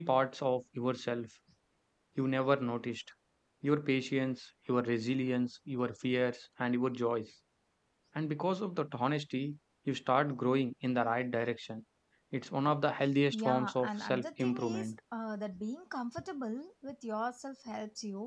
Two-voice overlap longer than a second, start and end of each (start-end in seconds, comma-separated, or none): 13.3-14.9